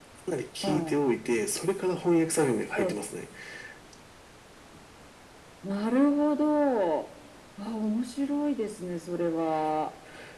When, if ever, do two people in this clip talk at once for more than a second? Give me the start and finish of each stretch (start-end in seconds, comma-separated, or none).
none